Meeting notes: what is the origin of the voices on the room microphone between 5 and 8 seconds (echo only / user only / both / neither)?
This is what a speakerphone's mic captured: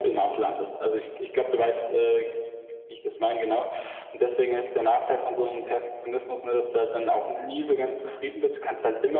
echo only